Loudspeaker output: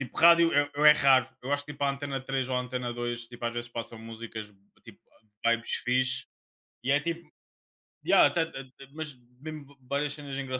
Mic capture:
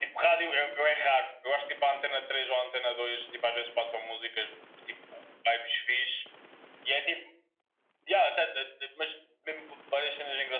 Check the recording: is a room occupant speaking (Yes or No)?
No